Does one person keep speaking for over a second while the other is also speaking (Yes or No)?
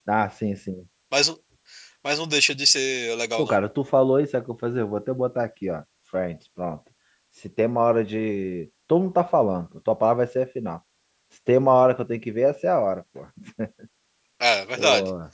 No